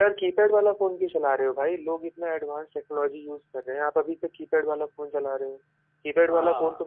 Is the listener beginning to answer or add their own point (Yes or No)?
No